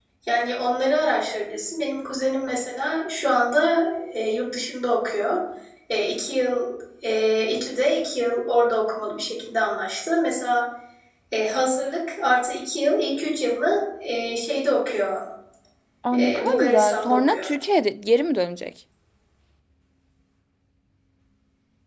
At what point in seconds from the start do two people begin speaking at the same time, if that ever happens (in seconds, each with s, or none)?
16.2 s